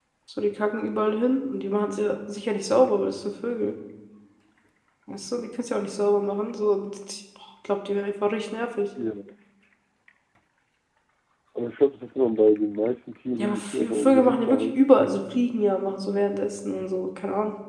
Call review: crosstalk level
present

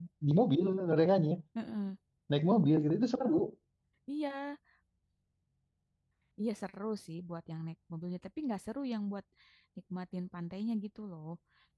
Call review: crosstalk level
none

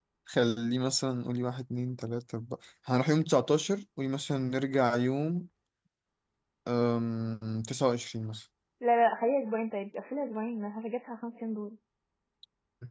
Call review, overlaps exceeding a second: none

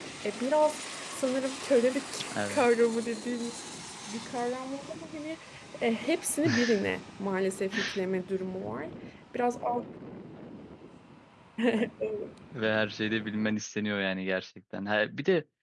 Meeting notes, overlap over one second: none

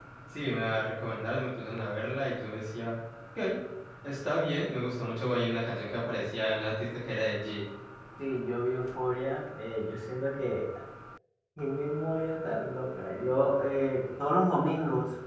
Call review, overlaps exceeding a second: none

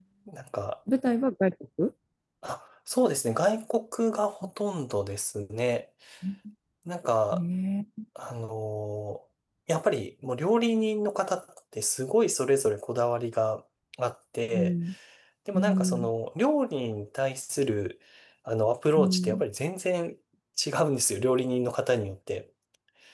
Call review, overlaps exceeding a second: none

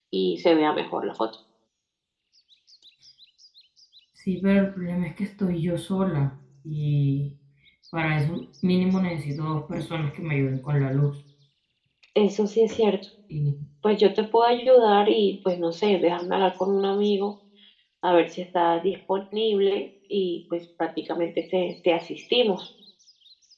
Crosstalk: none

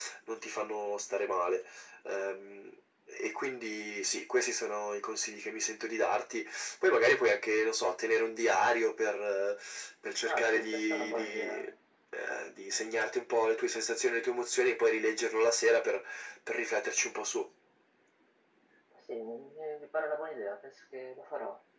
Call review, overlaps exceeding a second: present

